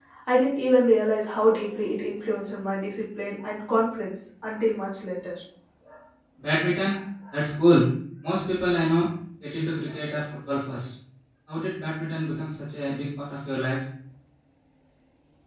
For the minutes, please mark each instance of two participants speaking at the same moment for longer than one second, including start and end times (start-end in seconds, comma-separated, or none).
none